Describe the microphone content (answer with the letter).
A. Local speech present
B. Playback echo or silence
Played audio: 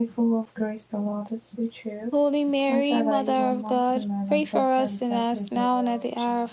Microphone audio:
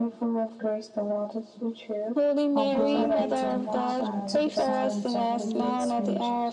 A